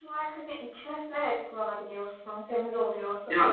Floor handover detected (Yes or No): Yes